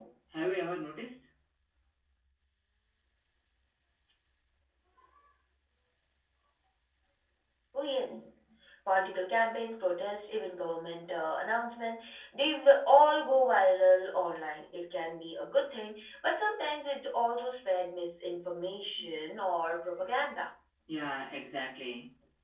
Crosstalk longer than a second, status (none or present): none